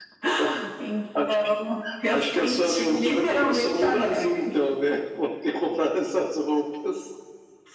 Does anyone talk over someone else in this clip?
Yes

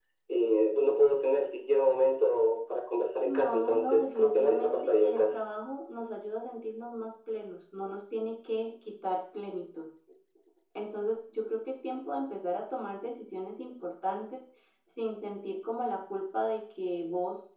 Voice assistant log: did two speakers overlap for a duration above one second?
Yes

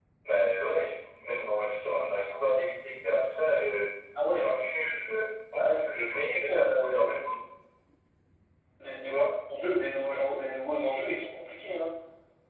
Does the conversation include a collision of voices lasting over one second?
Yes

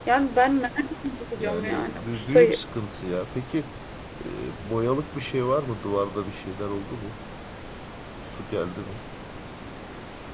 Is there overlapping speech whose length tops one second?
Yes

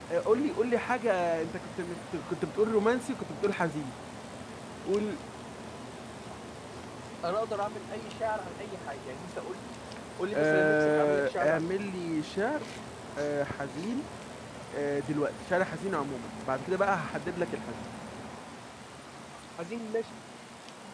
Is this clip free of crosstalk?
No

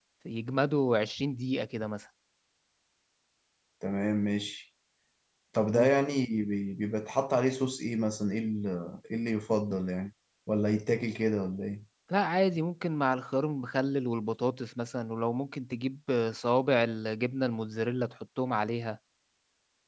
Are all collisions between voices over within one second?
Yes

